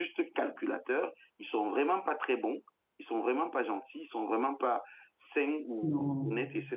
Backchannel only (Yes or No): Yes